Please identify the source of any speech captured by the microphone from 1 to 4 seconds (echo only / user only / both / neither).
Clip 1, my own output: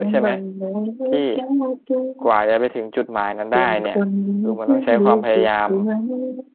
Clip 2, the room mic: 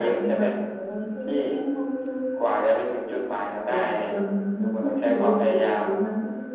echo only